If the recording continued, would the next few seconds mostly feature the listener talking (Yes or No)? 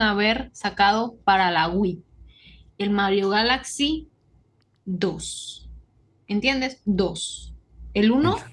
No